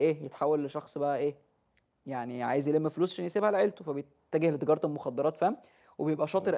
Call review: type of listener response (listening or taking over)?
listening